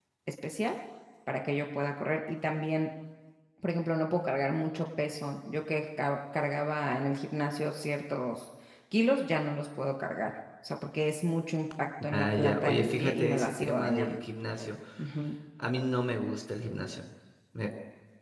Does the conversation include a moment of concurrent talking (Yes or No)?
Yes